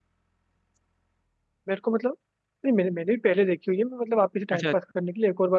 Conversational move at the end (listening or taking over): listening